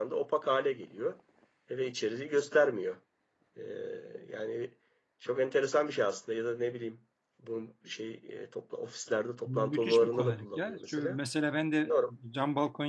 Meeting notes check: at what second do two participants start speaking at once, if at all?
9.5 s

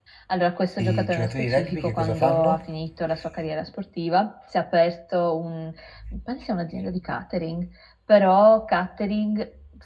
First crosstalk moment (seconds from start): 0.8 s

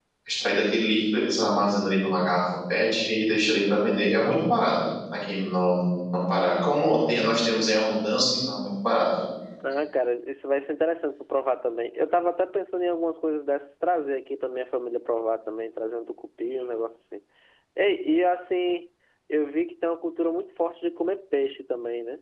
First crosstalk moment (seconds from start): none

